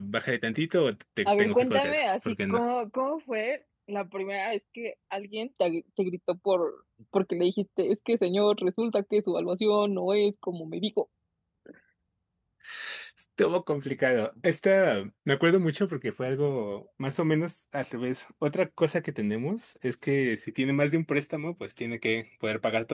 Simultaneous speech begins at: 1 s

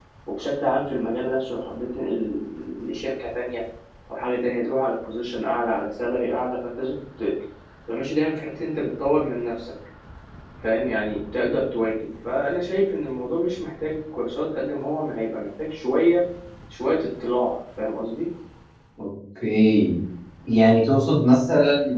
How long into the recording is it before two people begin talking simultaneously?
none

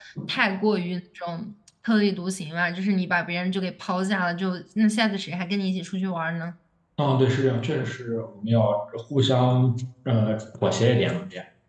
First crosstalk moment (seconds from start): none

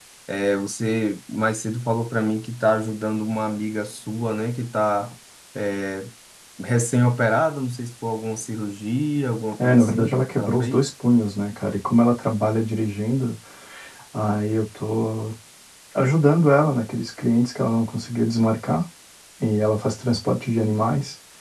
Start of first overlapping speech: 10 s

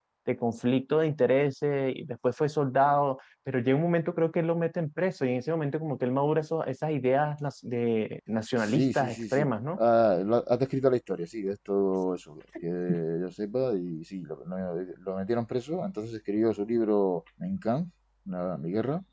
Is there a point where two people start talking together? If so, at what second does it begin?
9 s

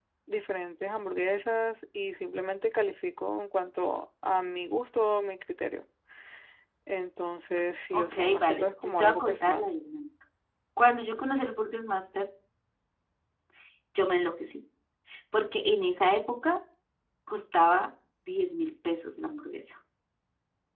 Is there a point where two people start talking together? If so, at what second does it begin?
8 s

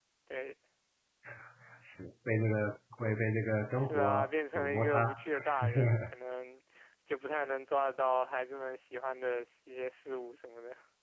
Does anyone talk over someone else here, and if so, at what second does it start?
4 s

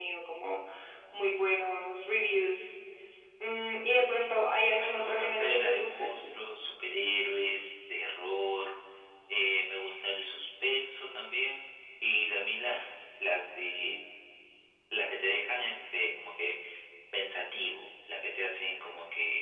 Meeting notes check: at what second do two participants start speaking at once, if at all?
5 s

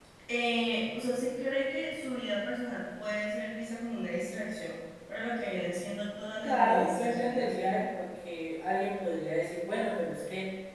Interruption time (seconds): 6 s

